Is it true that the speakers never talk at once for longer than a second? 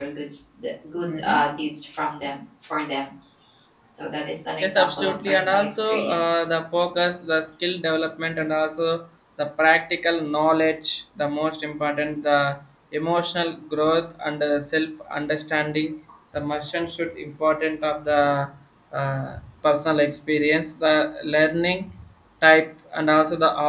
No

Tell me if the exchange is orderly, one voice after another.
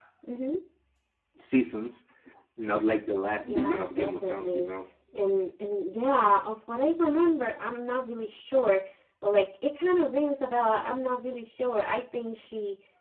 No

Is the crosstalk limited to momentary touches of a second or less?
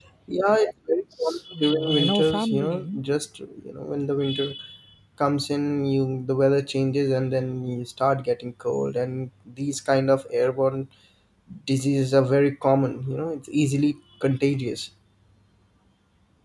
No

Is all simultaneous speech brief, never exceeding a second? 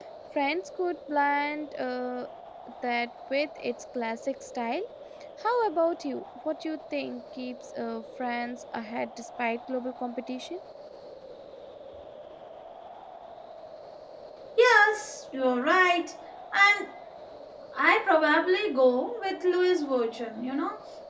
Yes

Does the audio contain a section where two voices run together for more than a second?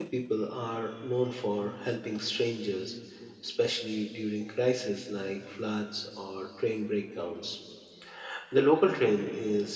No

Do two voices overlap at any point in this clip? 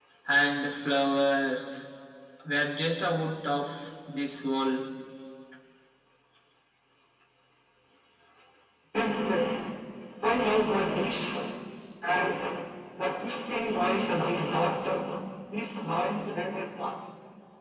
No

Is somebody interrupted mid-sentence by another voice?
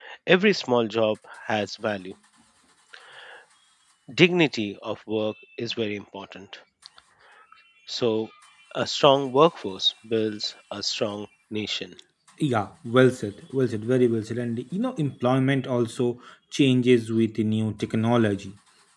No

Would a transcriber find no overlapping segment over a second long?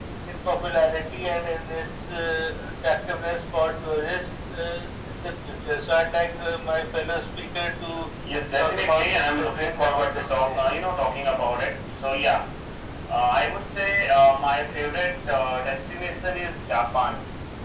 No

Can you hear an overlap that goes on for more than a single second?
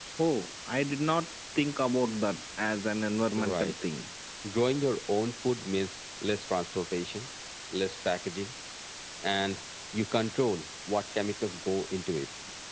No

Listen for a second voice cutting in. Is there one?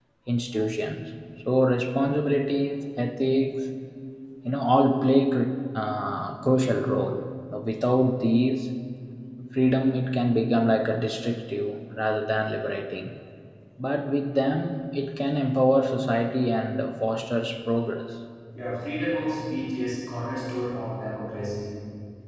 No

